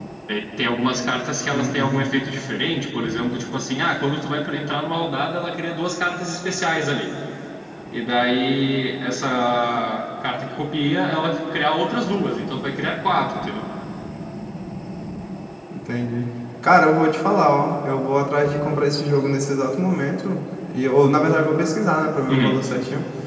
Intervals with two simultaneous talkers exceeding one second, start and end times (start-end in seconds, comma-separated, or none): none